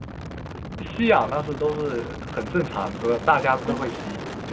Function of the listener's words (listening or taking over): listening